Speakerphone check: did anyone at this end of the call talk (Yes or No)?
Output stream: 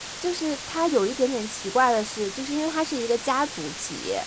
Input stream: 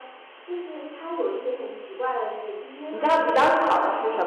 Yes